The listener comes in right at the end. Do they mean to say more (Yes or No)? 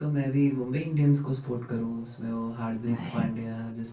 No